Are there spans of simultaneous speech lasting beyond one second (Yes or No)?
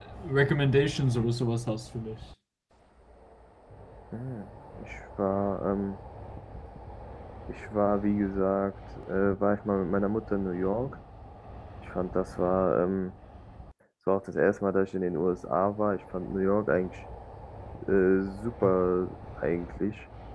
No